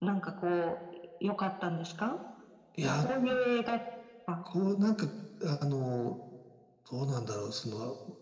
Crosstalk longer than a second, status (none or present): none